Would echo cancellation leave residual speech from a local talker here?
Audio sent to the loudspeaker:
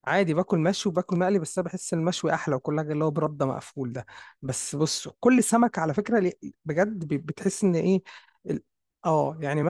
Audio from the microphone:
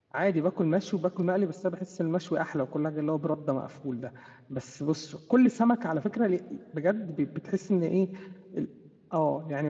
No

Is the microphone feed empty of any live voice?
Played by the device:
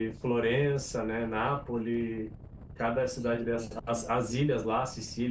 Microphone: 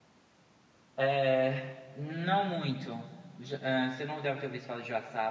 No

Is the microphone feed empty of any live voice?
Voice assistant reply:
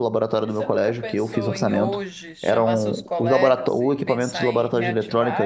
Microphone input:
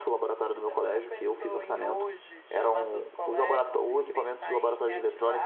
Yes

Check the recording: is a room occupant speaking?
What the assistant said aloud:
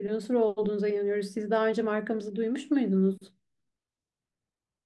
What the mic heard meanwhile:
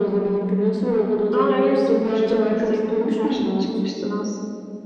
Yes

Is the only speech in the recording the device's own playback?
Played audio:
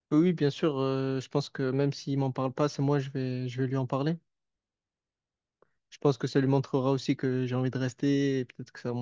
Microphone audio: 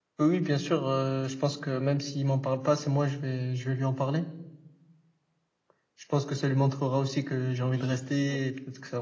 No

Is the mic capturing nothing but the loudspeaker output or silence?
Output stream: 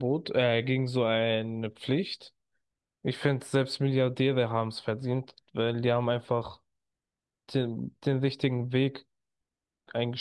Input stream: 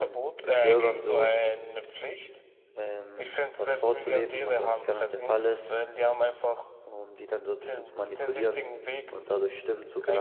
No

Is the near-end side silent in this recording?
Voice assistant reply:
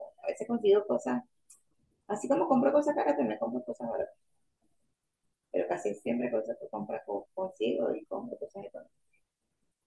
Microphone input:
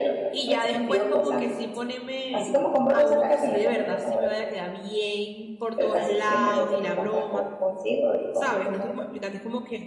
No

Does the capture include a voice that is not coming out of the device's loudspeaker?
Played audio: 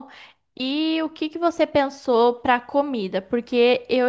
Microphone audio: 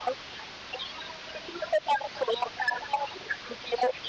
No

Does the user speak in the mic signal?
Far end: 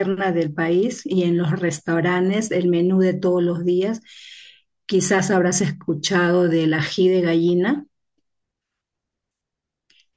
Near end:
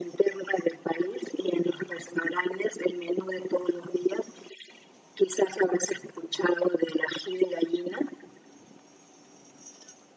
No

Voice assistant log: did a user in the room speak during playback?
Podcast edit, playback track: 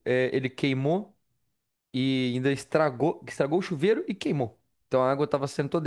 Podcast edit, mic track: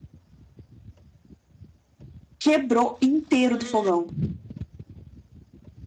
Yes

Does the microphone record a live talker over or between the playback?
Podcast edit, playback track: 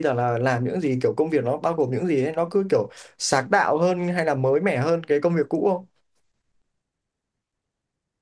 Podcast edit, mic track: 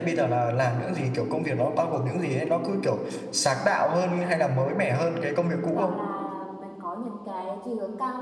Yes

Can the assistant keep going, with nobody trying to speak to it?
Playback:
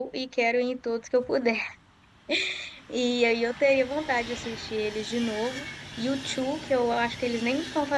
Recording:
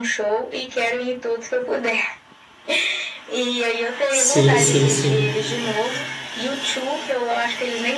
No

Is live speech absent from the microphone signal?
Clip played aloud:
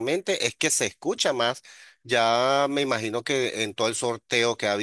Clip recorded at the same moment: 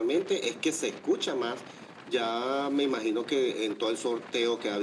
Yes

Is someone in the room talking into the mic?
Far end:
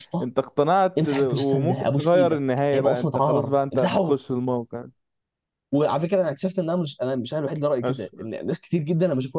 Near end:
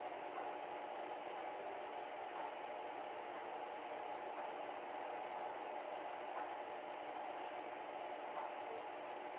No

